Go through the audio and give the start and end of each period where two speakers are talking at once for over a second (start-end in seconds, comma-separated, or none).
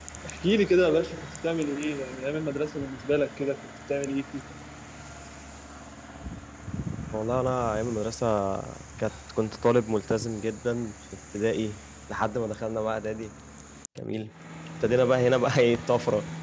none